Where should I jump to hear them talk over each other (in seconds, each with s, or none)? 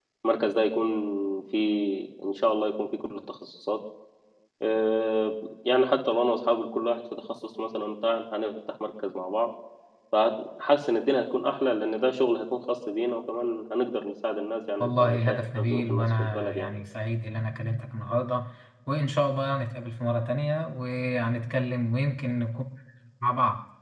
14.8 s